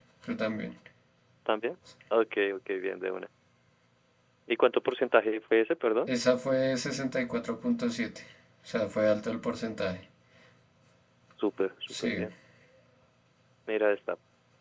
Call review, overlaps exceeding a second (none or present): none